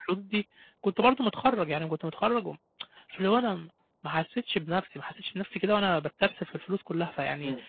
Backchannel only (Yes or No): Yes